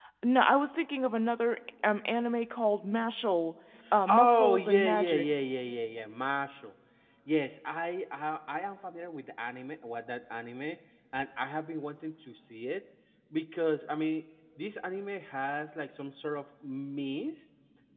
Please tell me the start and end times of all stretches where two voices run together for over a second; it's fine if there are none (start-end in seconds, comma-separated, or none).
4.1-5.3